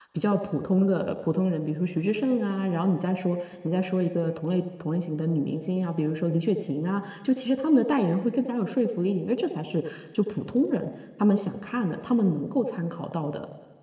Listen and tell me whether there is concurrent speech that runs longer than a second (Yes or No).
No